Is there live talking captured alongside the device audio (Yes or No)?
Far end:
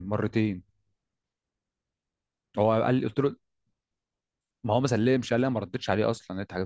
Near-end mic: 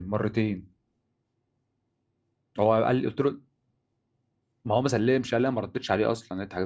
No